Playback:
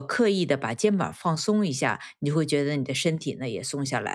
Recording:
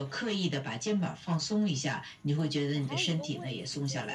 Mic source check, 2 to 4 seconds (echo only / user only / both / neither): both